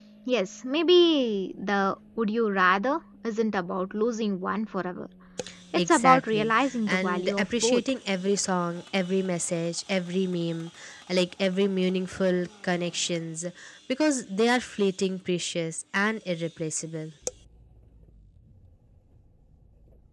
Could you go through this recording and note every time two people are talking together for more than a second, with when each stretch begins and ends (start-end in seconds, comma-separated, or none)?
5.9-7.8